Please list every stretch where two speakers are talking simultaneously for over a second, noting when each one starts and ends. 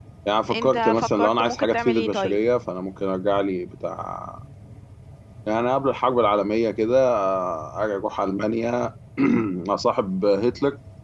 0.5-2.4

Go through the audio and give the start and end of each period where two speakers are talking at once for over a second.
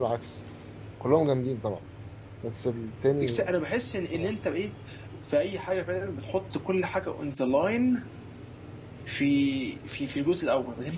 none

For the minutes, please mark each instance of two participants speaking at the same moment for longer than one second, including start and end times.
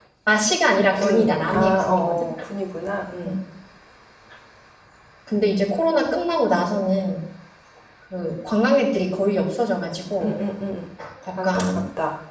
0.9-2.1

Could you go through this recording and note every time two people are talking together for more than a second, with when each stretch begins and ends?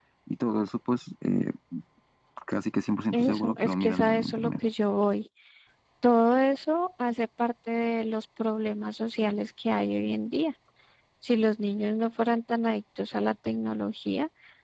3.1-4.5

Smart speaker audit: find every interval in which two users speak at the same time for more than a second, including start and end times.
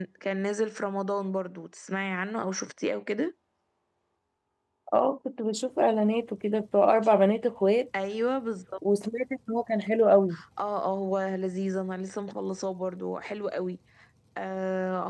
none

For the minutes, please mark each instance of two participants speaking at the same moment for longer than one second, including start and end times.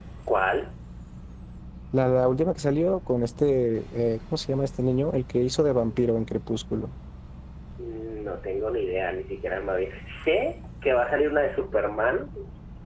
none

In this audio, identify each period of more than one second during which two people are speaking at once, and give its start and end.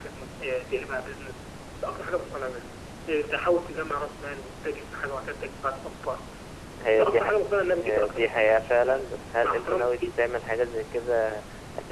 7.7-9.9

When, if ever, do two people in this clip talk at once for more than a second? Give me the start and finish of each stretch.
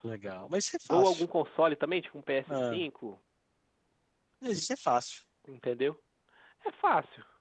none

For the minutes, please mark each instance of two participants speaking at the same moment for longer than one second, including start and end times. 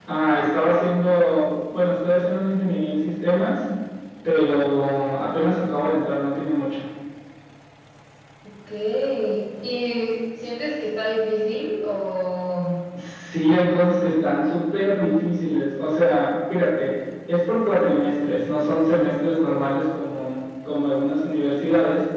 none

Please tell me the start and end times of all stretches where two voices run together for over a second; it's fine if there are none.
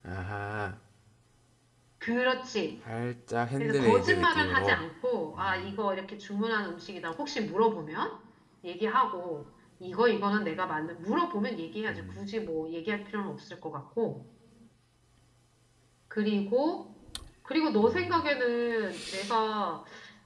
3.6-4.8

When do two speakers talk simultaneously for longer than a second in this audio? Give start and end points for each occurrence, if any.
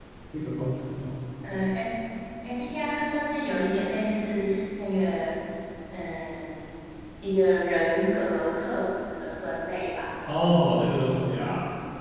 none

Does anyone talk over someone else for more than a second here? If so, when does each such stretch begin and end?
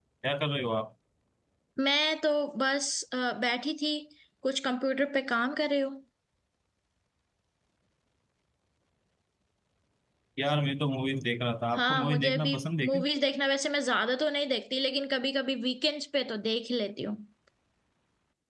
11.7-13.0

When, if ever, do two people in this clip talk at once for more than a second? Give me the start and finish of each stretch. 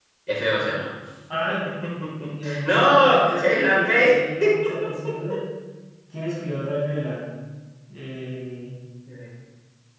2.6-4.1

